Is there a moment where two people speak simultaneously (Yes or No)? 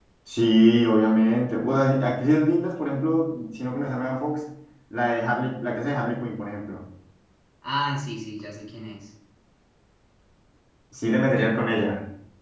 No